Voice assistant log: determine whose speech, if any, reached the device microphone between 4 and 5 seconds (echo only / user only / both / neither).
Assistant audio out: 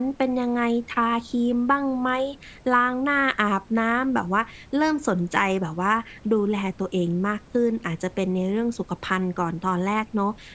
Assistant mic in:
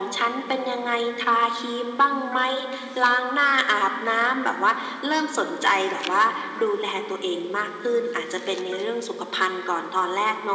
echo only